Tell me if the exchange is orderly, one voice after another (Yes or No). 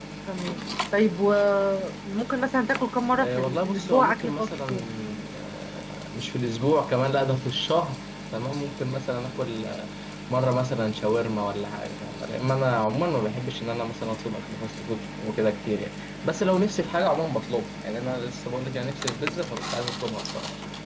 No